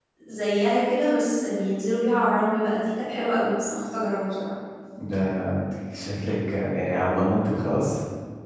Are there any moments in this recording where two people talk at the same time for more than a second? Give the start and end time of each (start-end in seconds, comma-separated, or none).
none